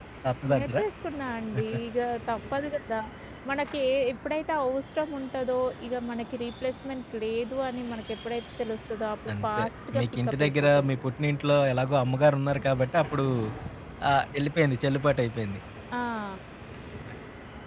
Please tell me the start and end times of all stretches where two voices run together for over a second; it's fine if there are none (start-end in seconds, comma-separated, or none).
9.3-10.9